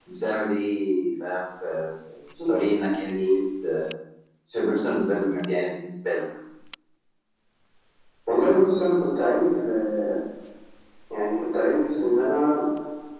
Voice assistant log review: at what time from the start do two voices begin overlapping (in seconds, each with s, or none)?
none